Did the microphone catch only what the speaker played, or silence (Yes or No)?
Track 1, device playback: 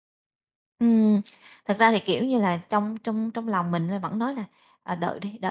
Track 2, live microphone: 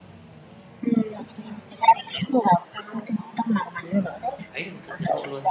No